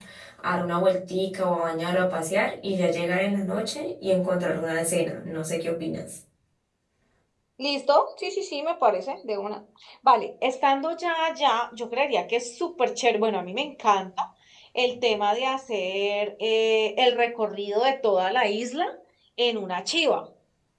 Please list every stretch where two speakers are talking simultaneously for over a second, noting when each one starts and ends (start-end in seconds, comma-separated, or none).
none